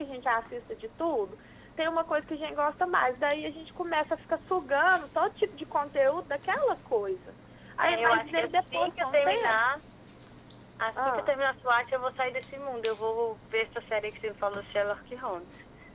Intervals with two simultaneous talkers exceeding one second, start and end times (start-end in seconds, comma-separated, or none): 7.8-9.6